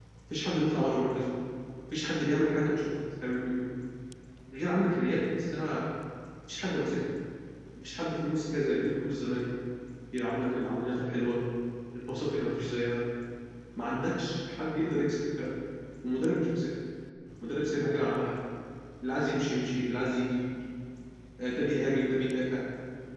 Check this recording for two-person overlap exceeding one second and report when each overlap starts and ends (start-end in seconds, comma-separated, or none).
none